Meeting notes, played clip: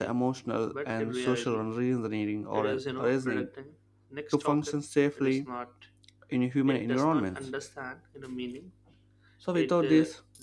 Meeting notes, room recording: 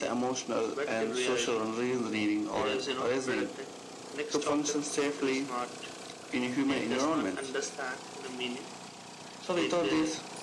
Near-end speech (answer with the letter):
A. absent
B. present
A